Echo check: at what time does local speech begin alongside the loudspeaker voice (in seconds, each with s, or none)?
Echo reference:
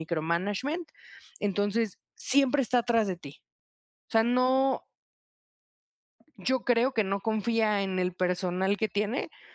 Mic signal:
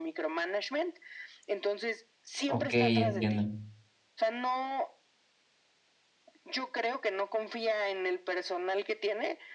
2.4 s